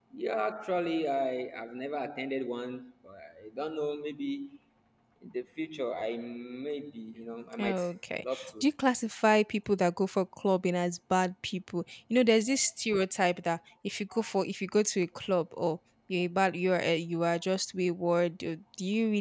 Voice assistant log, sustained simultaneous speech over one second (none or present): none